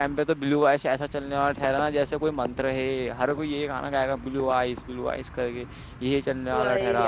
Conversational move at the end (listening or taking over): listening